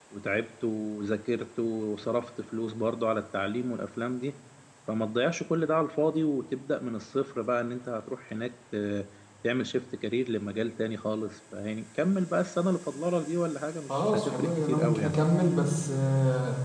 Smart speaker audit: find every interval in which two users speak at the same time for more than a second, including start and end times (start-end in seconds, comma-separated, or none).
13.9-15.2